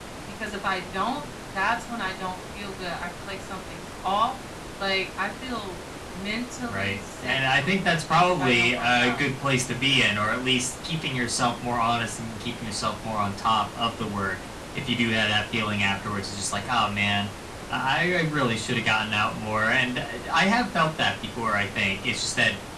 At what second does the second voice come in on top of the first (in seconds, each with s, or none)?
6.7 s